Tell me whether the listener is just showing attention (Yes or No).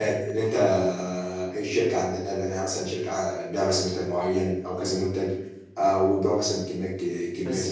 No